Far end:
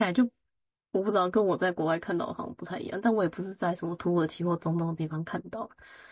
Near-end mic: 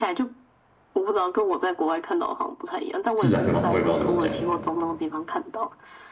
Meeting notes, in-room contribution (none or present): present